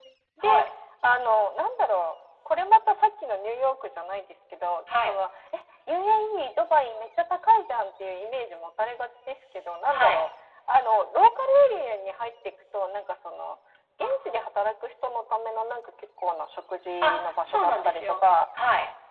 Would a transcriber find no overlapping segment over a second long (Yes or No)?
No